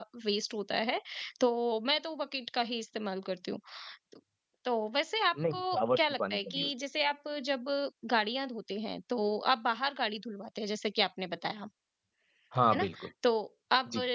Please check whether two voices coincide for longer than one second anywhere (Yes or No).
Yes